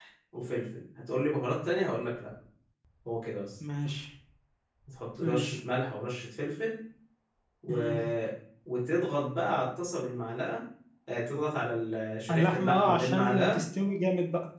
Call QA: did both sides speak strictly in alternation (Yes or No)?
No